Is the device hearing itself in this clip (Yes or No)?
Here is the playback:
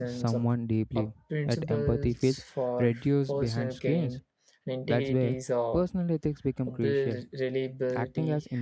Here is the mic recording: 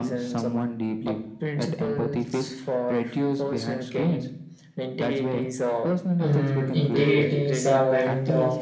Yes